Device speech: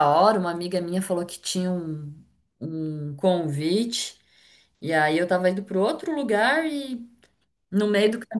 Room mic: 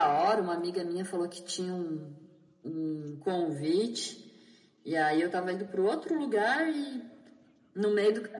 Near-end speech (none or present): none